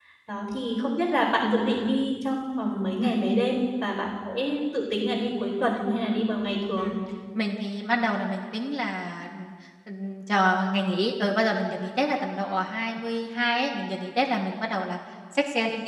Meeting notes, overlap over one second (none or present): none